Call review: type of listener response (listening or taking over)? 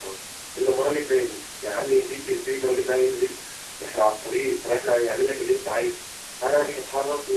listening